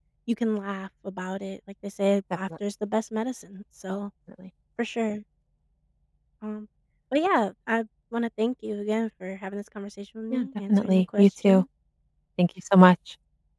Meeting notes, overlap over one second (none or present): present